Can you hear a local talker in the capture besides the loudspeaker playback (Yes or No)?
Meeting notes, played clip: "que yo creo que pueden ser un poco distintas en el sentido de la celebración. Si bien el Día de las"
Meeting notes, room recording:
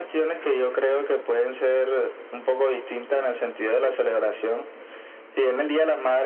No